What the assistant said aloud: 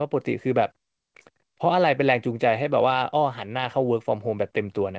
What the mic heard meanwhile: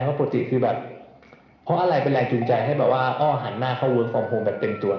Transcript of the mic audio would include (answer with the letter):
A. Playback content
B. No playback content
A